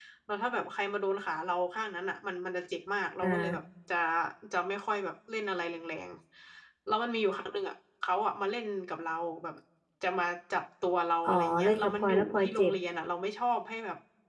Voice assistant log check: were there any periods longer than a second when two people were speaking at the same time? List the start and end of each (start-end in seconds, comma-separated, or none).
11.2-12.7